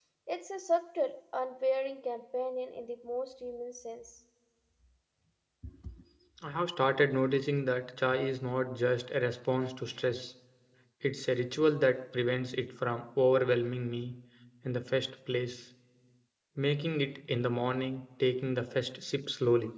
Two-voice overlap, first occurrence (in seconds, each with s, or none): none